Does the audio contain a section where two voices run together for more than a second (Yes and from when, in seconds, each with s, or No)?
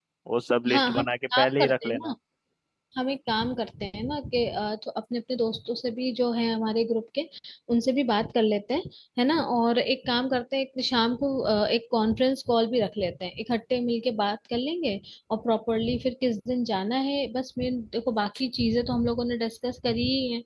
Yes, from 0.7 s